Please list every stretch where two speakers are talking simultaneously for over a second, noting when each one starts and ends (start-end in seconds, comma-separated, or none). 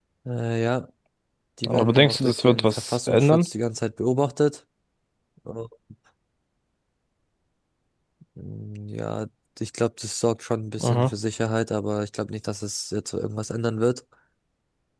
1.7-3.5